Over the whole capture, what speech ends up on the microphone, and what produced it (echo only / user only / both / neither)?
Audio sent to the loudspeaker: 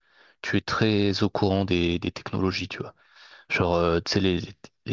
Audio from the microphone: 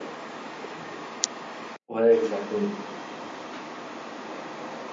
user only